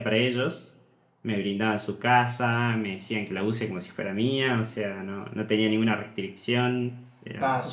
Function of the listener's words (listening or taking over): taking over